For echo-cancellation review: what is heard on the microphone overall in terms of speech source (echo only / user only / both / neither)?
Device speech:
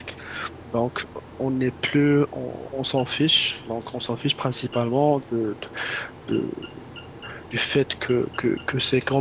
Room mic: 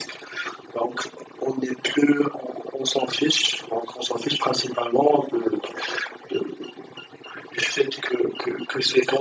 echo only